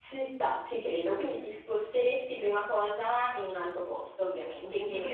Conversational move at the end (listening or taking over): taking over